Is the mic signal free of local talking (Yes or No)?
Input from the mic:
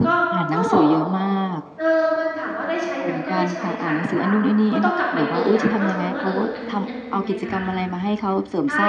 No